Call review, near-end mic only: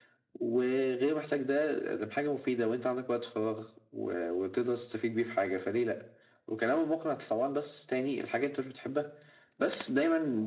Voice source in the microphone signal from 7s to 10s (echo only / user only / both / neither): echo only